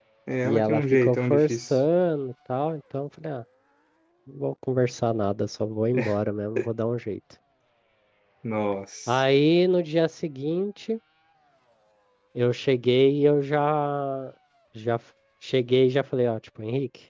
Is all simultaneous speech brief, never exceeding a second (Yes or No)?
No